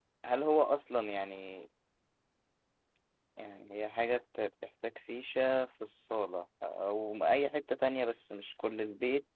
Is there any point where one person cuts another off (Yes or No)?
No